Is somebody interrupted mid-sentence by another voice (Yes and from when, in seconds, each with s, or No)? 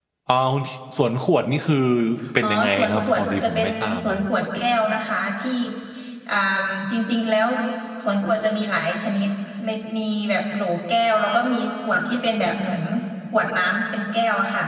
Yes, from 2.4 s